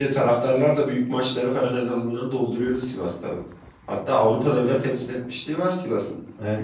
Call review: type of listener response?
taking over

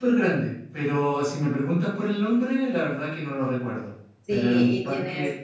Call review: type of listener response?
taking over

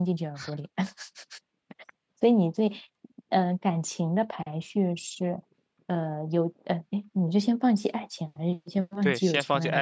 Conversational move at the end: taking over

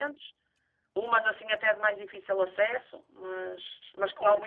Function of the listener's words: taking over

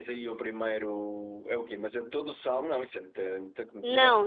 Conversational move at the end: taking over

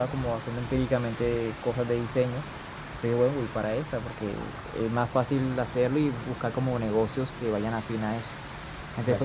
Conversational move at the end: taking over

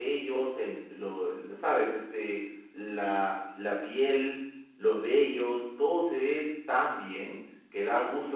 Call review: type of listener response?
taking over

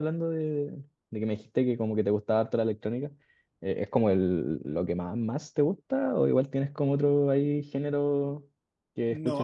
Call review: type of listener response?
taking over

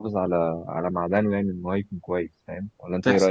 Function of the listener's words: taking over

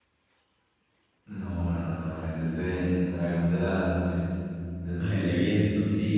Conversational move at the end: taking over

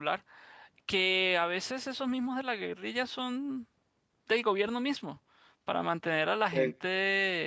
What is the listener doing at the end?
listening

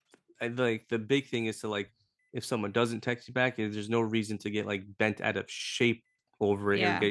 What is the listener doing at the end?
listening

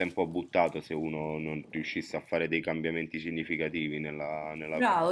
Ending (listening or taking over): taking over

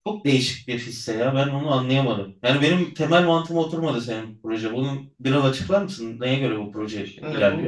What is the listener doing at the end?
taking over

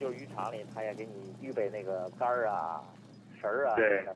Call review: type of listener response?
listening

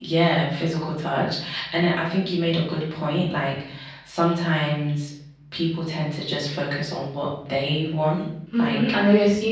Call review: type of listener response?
taking over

